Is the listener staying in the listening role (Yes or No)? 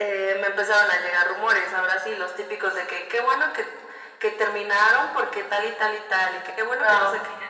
Yes